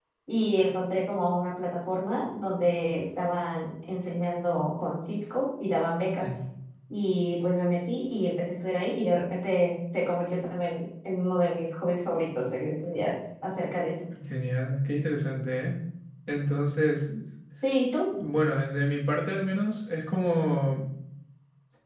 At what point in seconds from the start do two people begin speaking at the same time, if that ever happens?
none

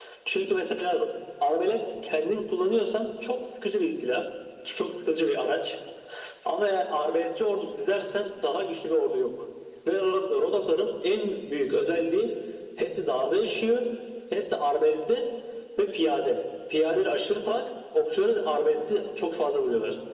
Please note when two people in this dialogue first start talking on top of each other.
none

